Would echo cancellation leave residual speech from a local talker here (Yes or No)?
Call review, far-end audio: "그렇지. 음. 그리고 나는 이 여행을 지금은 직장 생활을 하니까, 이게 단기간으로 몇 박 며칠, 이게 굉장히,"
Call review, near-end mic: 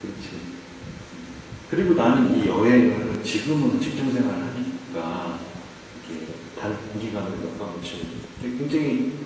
No